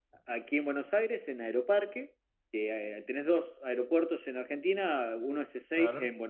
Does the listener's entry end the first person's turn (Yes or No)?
No